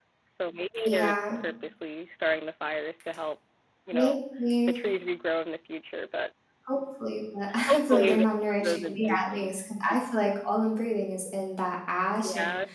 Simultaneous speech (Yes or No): Yes